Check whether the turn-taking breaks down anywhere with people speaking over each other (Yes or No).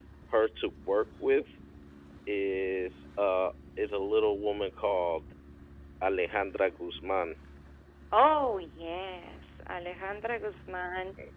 No